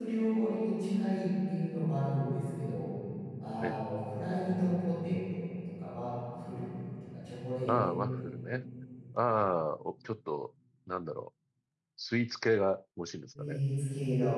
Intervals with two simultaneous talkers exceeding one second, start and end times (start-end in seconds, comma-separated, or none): none